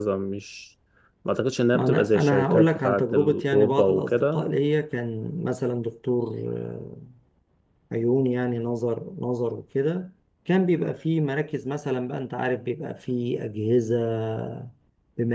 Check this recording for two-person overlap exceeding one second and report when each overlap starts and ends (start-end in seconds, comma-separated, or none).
1.7-4.4